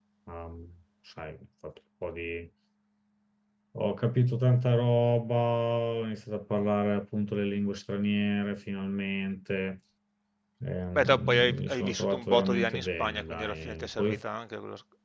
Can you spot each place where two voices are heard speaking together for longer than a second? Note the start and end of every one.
11.0-14.1

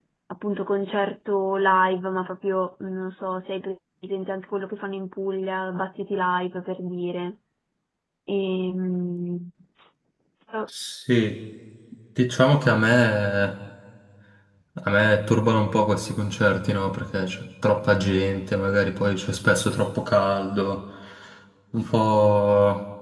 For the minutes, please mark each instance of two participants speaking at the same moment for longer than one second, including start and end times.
none

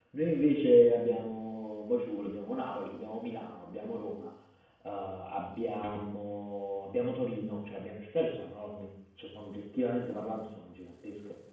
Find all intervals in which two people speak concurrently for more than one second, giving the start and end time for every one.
none

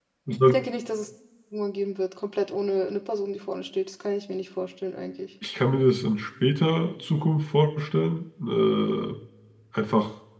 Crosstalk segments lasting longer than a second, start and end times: none

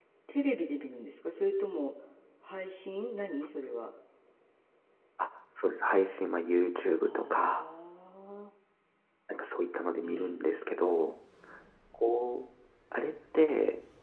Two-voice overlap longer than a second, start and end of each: none

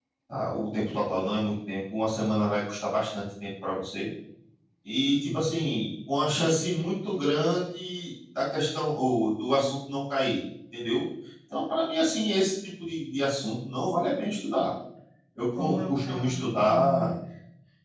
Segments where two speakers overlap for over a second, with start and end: 15.6-17.1

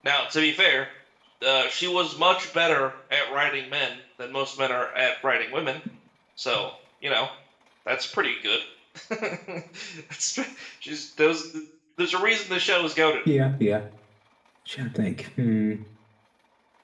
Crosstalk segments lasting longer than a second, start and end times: none

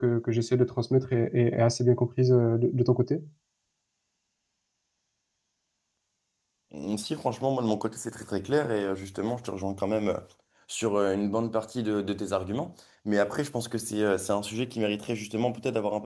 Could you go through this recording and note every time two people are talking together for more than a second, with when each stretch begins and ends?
none

